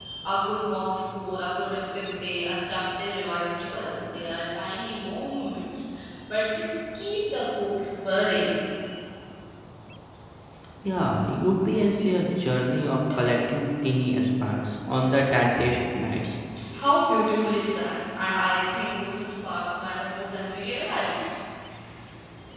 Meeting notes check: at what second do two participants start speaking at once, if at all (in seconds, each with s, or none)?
none